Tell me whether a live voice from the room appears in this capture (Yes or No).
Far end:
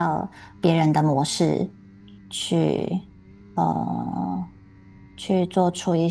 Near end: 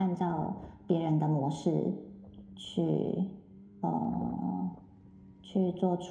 No